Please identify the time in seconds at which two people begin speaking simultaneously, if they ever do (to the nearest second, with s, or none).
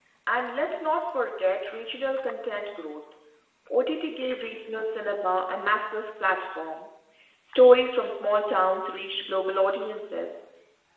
none